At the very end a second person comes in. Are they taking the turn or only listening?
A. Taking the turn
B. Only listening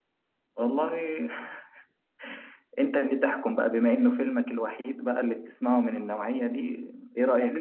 A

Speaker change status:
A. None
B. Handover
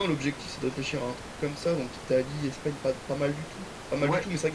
A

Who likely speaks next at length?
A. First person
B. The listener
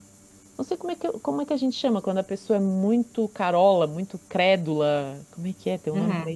B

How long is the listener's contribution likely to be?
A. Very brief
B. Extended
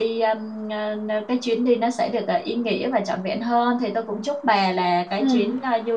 A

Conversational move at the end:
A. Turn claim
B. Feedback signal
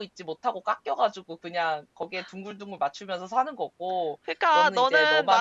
A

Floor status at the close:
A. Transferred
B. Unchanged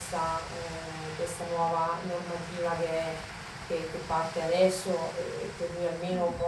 B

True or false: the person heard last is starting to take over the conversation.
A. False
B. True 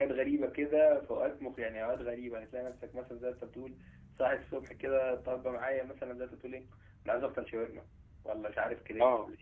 A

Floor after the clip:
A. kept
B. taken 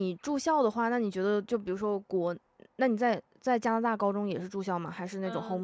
B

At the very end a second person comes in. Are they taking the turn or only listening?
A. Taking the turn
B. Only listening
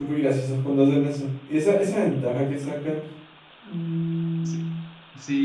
A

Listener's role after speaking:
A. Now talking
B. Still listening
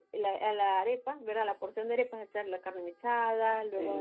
B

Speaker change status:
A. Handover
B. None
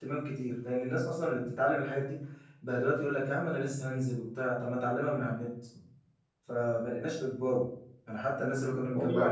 B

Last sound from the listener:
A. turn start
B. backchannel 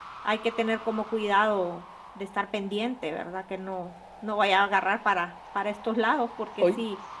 A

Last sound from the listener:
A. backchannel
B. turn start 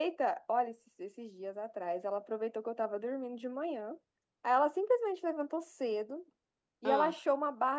A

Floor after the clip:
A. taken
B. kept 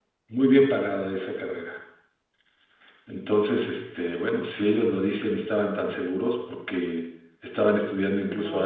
B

